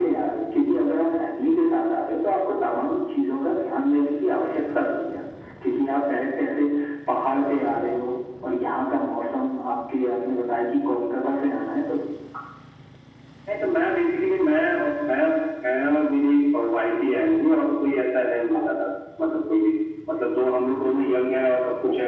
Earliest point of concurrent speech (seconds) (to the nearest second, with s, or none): none